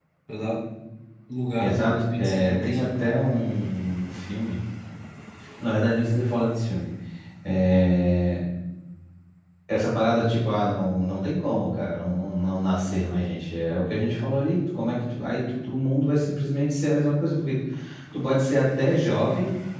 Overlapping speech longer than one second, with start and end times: 1.6-3.1

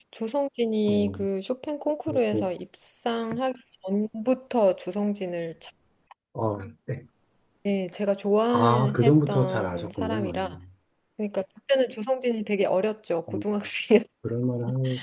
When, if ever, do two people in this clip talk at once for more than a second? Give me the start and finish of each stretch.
8.5-10.4

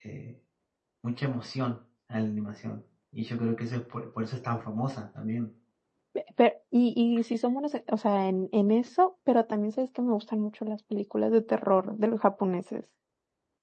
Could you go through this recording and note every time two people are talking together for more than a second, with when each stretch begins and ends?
none

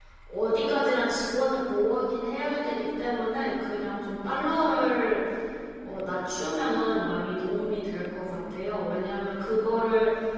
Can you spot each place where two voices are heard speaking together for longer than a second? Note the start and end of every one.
none

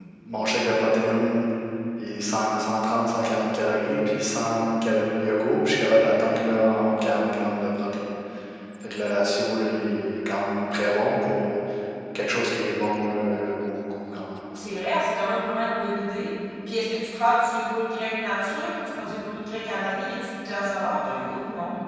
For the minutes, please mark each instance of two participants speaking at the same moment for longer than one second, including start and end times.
none

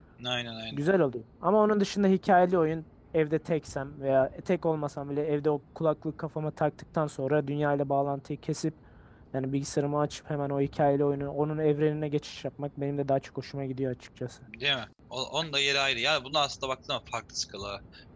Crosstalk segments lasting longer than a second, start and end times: none

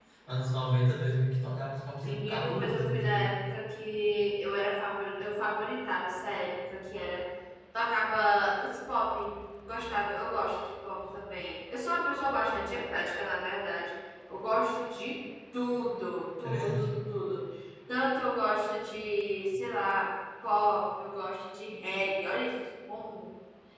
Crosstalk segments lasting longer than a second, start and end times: 2.0-3.3

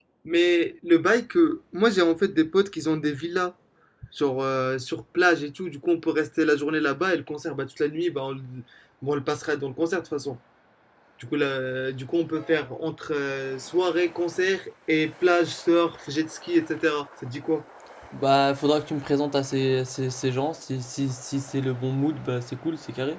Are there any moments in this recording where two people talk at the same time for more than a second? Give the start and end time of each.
none

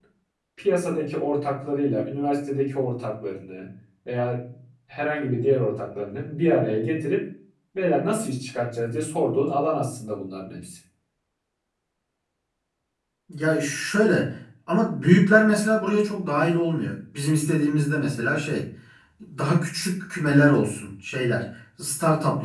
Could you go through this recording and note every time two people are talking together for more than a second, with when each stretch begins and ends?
none

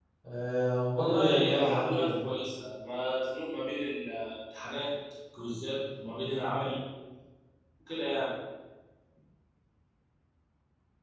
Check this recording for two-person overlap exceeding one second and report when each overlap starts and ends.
0.9-2.1

